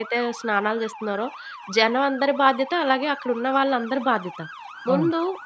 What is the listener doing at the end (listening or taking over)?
listening